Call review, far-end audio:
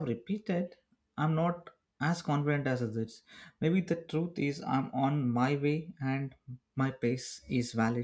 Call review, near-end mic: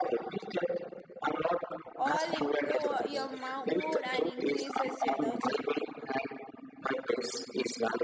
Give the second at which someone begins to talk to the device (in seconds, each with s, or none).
2.0 s